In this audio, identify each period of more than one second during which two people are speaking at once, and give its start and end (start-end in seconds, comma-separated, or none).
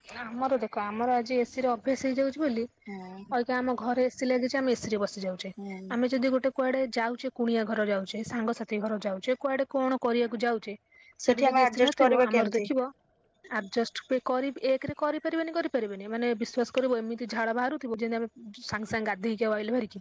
11.2-12.6